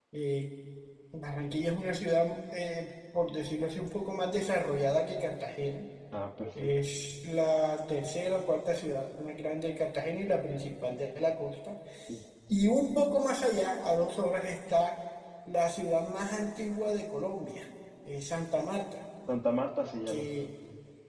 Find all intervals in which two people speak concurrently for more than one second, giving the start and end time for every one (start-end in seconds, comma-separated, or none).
none